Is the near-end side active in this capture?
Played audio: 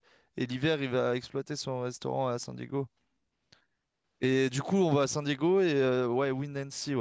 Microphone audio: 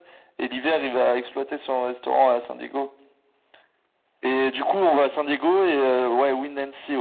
No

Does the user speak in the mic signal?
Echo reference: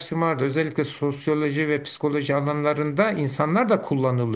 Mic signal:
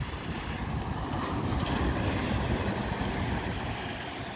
No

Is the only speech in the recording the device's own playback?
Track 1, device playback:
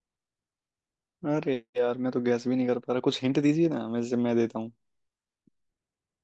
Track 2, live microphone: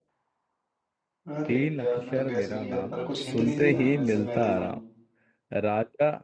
No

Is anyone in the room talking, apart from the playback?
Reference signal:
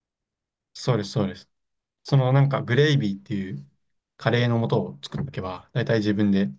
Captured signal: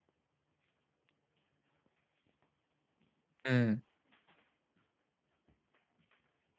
Yes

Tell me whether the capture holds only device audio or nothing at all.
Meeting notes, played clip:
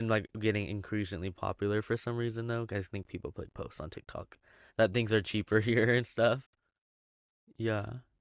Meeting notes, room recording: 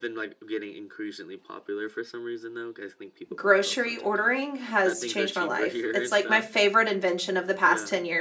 No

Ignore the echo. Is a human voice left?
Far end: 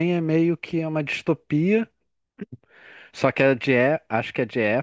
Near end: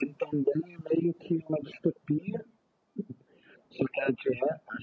No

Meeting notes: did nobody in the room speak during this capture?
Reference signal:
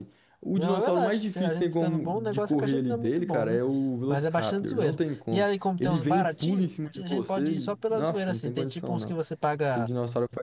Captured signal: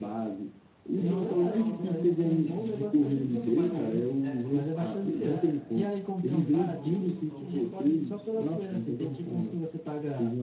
No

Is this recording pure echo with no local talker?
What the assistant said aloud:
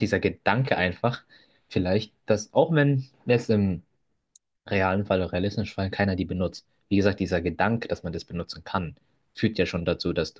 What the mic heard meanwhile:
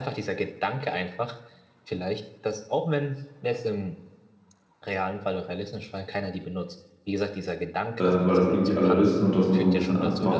No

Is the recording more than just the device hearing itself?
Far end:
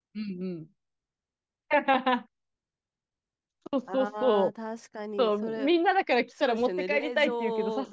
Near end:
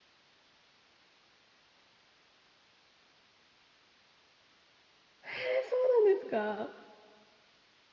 Yes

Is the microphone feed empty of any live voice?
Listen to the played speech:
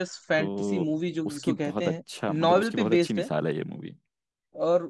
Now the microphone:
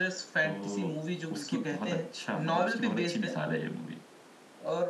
Yes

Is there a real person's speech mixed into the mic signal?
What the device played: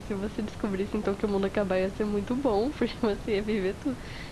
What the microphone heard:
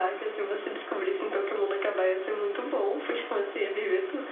No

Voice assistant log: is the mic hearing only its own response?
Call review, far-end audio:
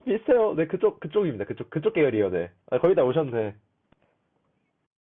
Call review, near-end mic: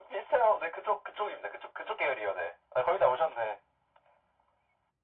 Yes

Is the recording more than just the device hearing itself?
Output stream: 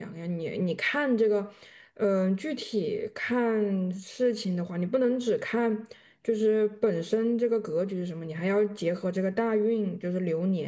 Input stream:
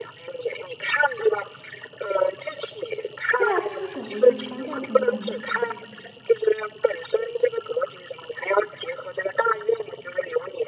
Yes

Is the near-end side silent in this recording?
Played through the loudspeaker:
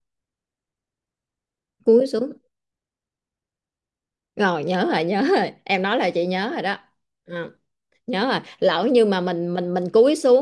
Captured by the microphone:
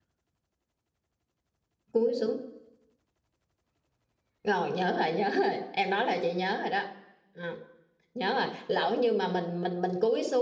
Yes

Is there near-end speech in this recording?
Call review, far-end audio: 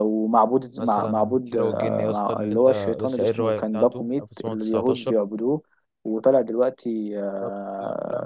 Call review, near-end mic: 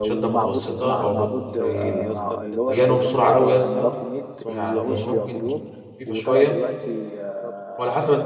Yes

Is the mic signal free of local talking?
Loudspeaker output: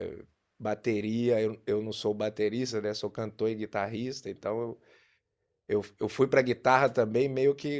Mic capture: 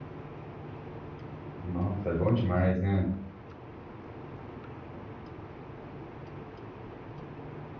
No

